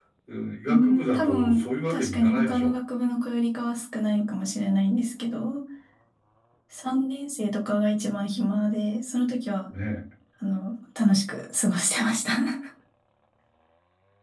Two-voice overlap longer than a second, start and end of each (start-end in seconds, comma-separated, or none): 0.7-2.7